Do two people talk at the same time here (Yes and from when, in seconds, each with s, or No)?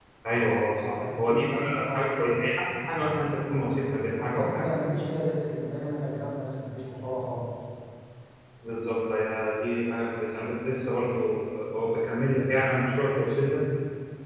Yes, from 0.9 s